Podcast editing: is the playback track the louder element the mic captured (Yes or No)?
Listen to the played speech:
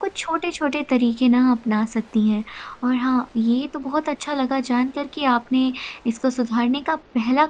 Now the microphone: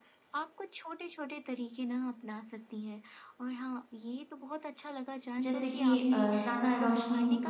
No